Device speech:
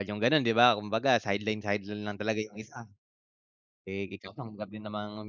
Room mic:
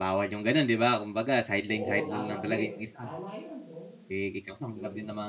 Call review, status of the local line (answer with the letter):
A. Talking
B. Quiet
A